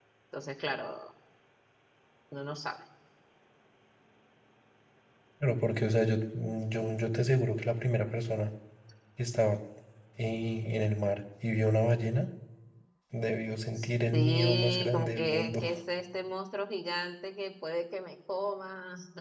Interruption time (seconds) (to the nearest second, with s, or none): 14 s